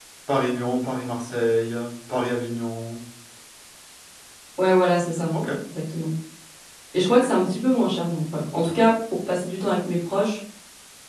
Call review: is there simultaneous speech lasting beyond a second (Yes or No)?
No